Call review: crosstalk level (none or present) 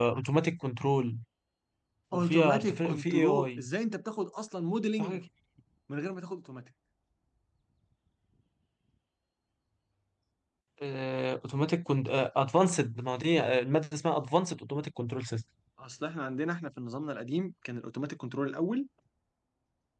present